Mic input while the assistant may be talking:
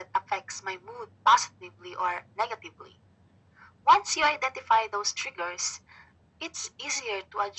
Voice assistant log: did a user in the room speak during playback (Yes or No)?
No